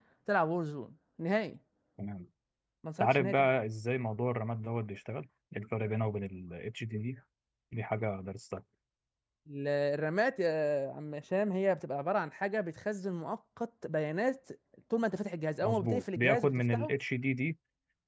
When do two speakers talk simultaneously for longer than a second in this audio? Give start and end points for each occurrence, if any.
15.6-16.9

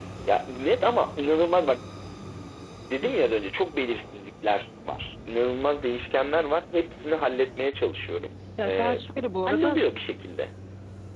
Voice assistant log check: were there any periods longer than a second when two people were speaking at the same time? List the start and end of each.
none

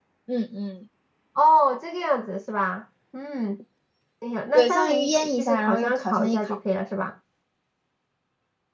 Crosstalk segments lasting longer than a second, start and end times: 4.5-6.6

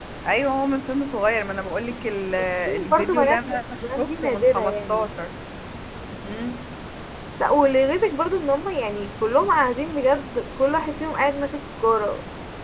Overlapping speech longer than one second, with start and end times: 2.9-5.0

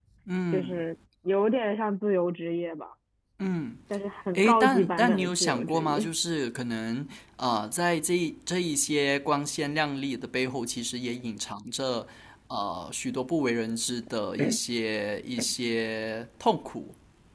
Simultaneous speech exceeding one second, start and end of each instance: 4.4-6.1

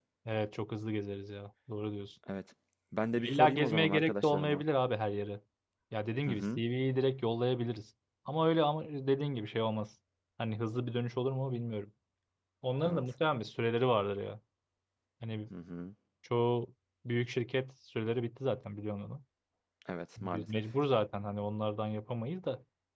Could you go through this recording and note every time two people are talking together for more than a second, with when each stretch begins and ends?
3.1-4.6

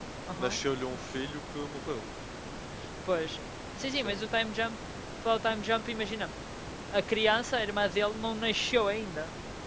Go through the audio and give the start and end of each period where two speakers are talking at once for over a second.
none

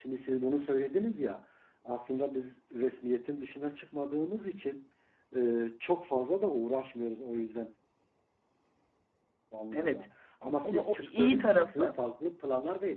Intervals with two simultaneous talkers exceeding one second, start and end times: 10.6-12.0

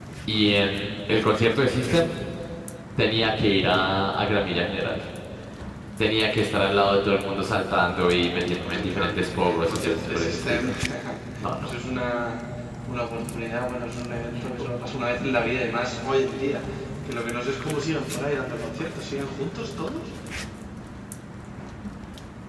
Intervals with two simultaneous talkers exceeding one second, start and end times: 8.7-10.6

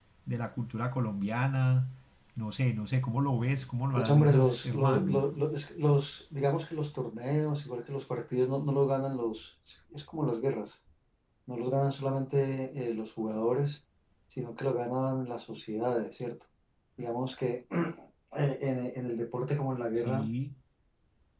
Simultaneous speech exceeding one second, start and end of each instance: 4.0-5.3

